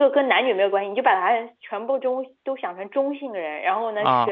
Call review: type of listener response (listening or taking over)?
listening